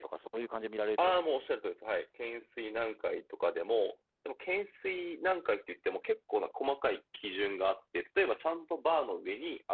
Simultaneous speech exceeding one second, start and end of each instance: none

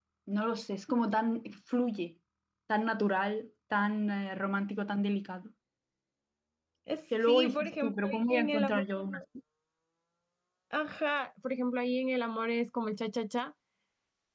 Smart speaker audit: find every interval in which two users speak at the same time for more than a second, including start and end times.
7.3-9.2

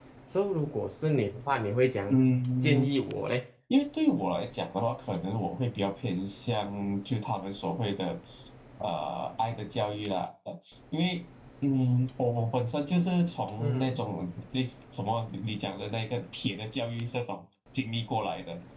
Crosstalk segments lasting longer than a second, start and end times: none

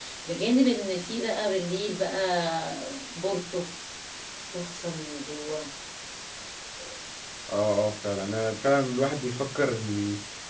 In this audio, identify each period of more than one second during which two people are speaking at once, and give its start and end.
none

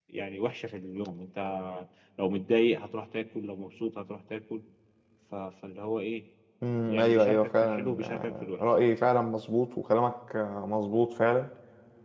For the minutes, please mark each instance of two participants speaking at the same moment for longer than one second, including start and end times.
6.9-8.6

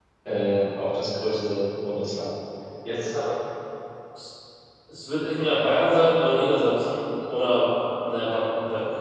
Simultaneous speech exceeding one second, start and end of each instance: none

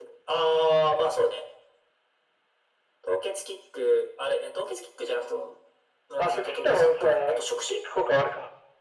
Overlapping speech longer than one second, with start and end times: 6.2-7.8

